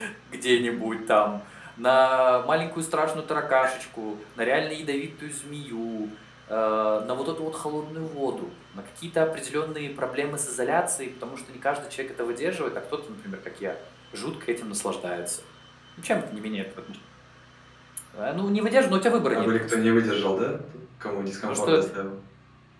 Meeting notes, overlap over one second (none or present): none